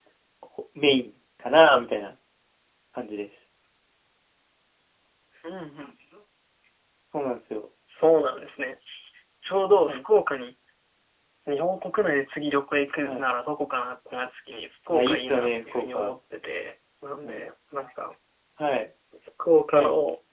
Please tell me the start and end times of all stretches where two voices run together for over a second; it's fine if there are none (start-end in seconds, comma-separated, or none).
14.9-16.1